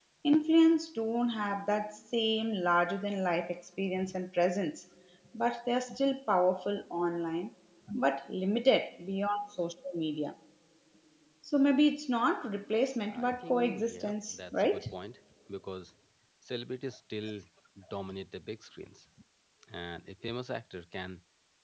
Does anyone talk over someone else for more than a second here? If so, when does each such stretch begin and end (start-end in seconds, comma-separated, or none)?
13.1-14.8